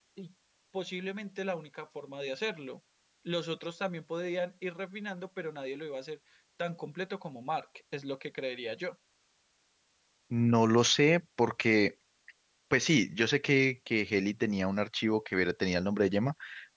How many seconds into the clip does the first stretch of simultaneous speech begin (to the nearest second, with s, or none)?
none